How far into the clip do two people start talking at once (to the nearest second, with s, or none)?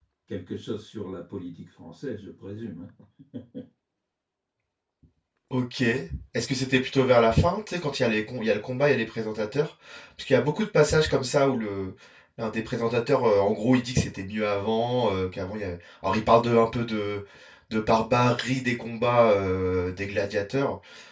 none